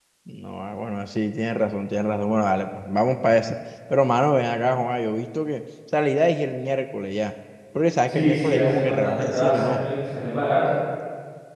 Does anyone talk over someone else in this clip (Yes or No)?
Yes